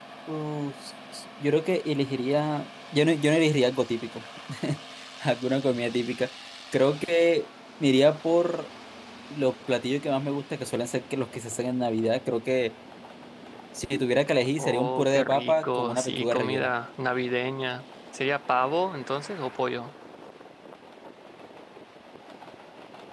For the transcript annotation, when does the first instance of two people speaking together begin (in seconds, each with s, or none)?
14.6 s